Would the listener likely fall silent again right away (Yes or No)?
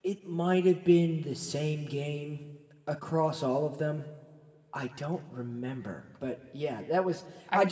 Yes